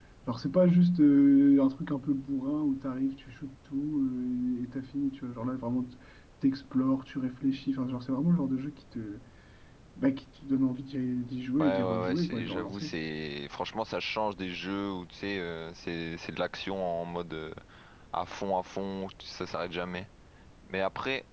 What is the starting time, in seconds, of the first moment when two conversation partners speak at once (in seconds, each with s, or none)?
11.6 s